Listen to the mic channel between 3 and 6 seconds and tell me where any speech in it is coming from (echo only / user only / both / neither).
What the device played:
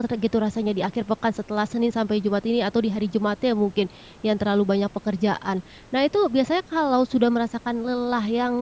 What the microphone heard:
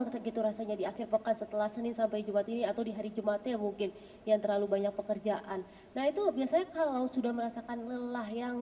echo only